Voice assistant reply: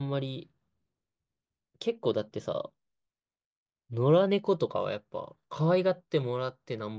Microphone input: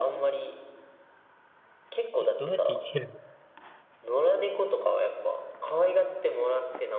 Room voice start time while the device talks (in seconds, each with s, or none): 2.2 s